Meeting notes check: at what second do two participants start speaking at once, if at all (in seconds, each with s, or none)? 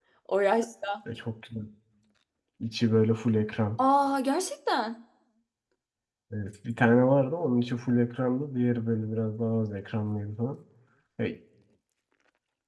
none